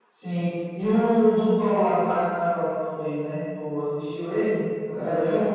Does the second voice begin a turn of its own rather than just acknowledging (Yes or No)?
Yes